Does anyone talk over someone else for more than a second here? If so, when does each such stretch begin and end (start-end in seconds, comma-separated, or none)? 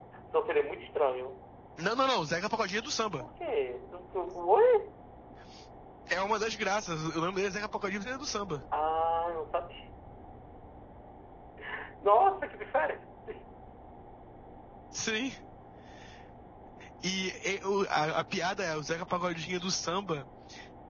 none